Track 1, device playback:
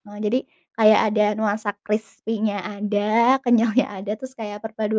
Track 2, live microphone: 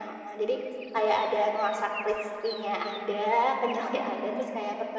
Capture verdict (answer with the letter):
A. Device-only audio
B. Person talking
A